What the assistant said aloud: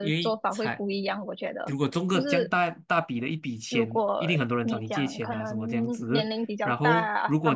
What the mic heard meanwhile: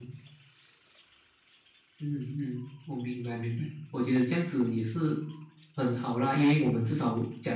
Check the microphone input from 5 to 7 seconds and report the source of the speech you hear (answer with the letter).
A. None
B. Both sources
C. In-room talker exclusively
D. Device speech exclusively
C